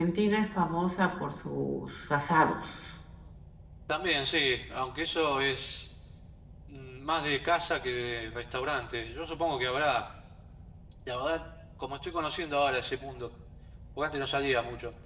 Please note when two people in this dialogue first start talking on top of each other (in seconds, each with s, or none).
none